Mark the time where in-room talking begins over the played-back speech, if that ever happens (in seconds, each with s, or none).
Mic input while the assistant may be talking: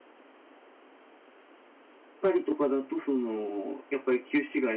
2.2 s